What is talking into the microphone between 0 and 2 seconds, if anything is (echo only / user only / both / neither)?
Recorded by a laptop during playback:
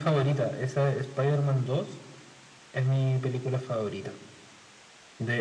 echo only